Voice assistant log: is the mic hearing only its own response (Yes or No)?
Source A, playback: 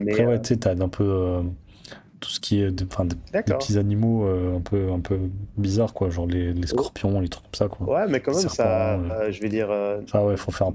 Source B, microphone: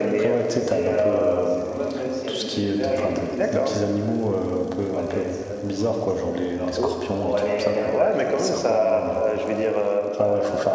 No